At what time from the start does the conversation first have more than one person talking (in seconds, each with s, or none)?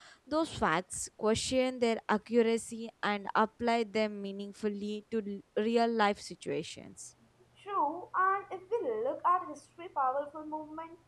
none